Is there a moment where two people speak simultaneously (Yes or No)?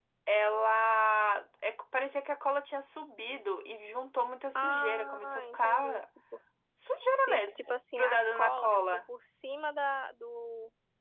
Yes